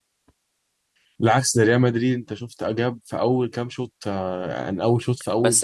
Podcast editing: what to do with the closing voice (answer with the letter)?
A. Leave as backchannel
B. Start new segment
B